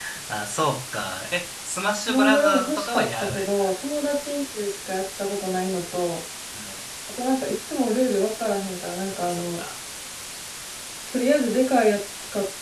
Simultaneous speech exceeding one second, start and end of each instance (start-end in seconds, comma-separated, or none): 2.1-3.7